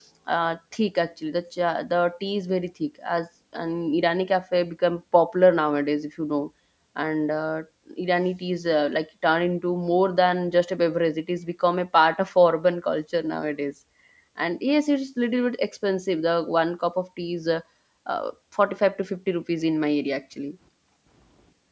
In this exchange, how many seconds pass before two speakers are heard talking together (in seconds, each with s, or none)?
none